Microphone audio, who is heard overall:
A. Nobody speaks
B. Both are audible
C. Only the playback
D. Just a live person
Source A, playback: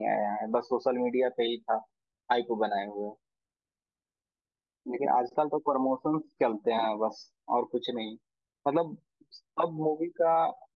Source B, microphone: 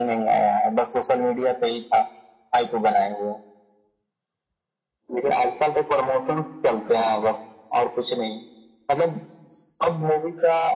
C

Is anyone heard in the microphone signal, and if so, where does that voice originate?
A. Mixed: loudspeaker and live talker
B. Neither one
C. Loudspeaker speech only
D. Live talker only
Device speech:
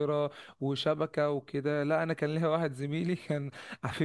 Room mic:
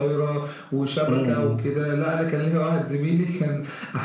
A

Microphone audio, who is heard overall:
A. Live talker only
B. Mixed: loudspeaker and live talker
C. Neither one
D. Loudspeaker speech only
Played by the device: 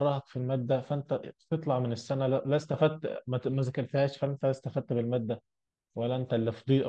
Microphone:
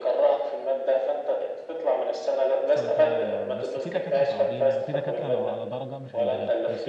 B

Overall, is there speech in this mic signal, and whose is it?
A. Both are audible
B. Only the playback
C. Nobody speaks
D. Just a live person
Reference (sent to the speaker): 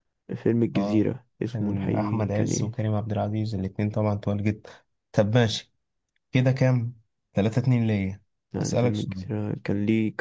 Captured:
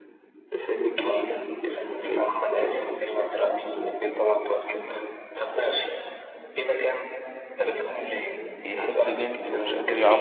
A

